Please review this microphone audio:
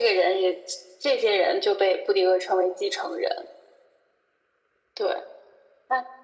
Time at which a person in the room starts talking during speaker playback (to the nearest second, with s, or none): none